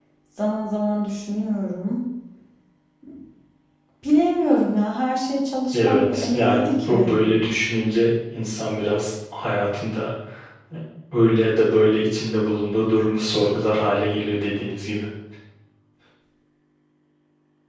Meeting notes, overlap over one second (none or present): present